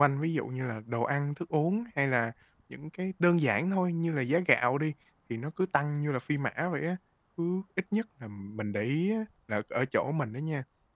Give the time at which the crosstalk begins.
none

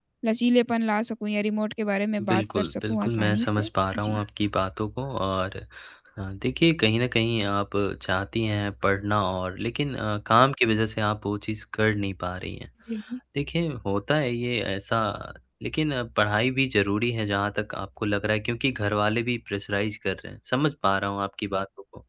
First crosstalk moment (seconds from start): 2.2 s

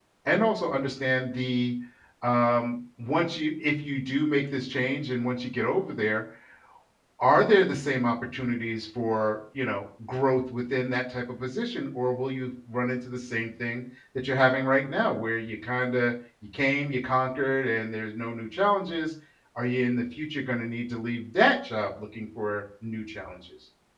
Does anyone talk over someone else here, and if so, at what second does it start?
none

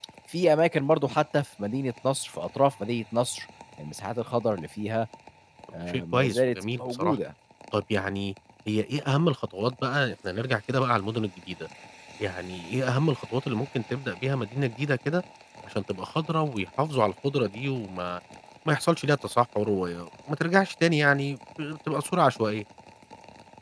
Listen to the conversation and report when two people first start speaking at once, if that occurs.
5.9 s

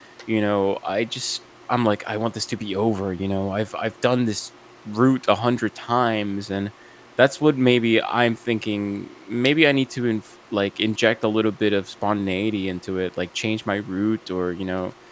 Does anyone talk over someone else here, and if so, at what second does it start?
none

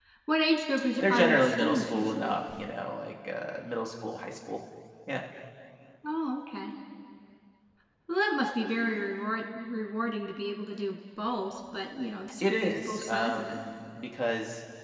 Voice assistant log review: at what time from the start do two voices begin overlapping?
1.0 s

